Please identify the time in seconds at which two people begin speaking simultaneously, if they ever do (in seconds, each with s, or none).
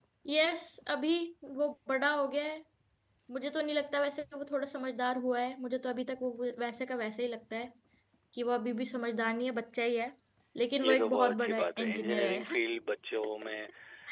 10.8 s